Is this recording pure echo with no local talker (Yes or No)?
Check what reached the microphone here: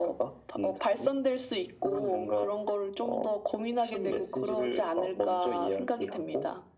Yes